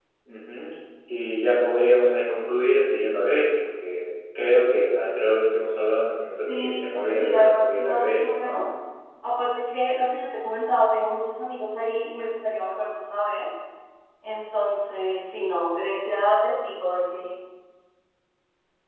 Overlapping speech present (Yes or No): Yes